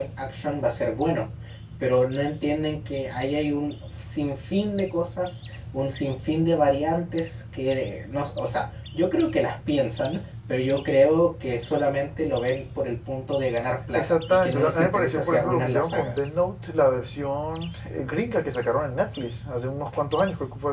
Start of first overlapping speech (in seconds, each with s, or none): 13.9 s